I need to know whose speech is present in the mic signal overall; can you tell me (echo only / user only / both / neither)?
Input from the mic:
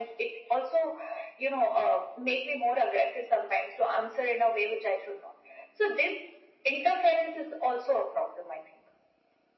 echo only